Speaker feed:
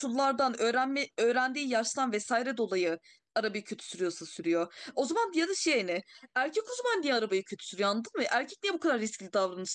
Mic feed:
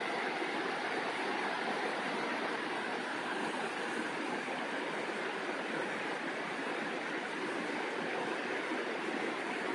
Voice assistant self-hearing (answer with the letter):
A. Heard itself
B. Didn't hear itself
B